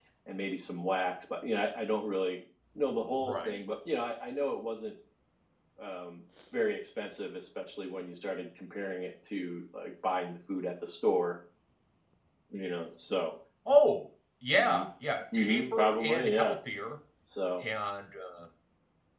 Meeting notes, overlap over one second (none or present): present